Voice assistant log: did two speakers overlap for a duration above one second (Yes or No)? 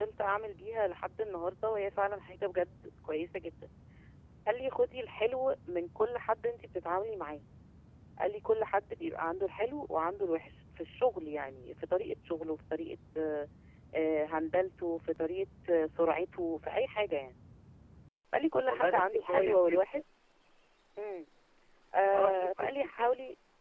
Yes